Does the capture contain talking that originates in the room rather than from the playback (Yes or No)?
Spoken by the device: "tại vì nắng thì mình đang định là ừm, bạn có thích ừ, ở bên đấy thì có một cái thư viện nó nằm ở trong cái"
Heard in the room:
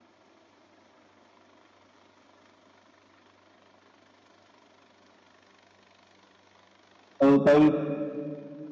Yes